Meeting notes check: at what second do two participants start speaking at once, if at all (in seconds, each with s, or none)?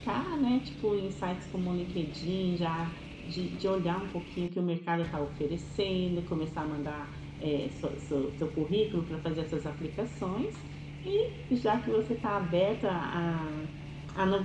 none